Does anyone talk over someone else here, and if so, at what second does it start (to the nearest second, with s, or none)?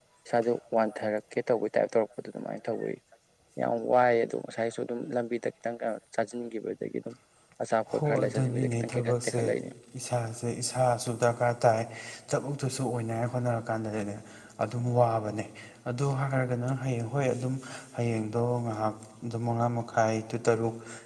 8 s